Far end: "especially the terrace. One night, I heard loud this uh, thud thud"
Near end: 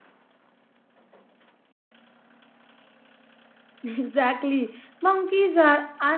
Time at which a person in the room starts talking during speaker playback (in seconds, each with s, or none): 3.8 s